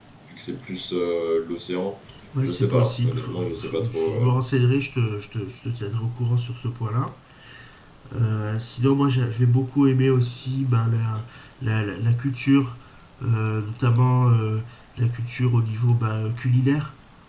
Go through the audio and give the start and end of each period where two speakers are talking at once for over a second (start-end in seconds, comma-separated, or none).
2.4-4.3